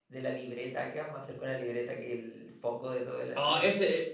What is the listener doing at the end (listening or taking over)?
taking over